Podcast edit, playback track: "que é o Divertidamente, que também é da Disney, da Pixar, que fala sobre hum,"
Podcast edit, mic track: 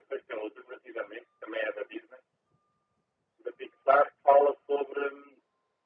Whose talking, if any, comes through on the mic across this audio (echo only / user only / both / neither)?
echo only